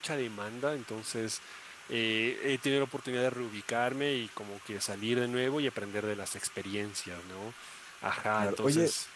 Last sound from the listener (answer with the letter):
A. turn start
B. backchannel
A